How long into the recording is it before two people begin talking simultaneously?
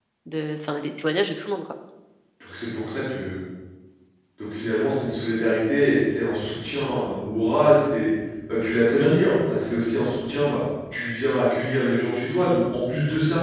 none

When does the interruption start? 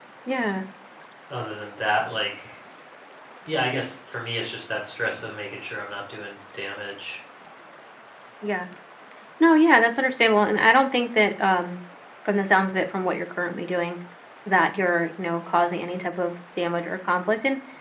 none

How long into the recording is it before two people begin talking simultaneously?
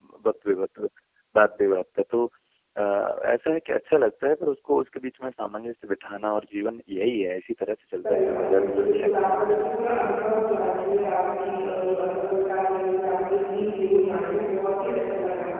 7.9 s

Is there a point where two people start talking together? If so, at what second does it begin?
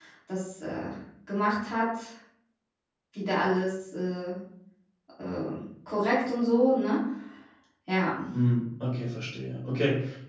none

